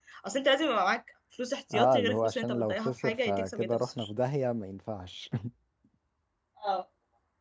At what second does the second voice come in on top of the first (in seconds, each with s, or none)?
1.7 s